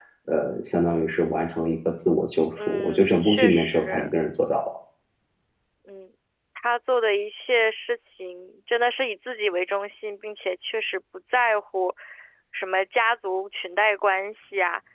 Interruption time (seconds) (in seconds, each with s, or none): 2.6 s